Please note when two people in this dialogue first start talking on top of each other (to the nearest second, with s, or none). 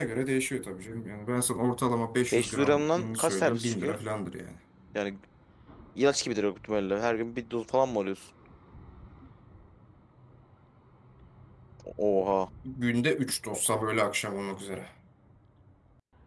2 s